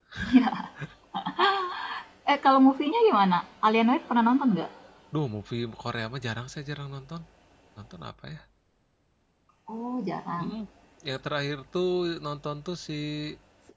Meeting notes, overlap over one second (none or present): none